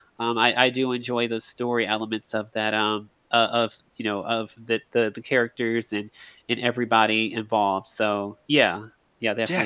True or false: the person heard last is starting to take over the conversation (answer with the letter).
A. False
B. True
B